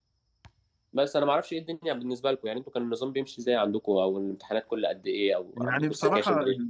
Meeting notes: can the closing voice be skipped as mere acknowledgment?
No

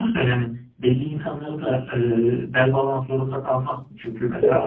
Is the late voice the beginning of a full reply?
No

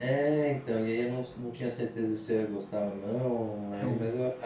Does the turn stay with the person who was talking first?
Yes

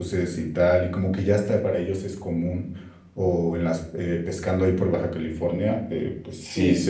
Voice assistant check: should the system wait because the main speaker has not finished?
Yes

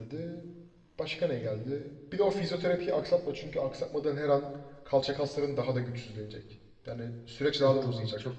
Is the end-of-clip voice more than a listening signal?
Yes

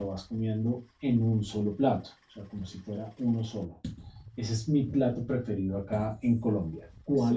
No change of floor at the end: No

